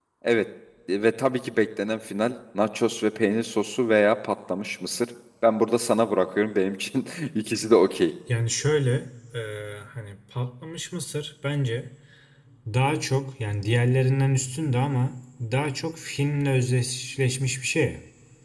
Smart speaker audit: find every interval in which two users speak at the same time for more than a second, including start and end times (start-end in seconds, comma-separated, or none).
none